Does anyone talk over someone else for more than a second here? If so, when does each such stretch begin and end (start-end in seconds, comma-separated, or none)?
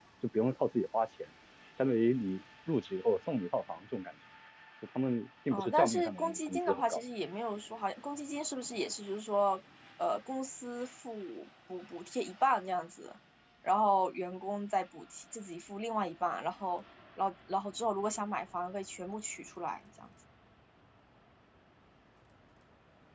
5.5-7.0